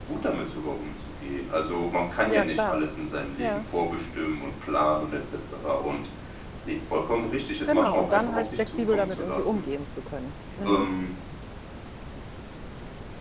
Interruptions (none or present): present